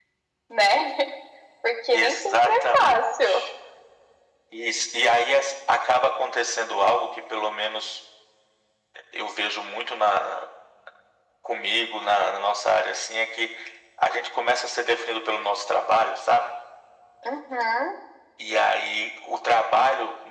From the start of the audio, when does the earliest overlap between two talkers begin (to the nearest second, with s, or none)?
2 s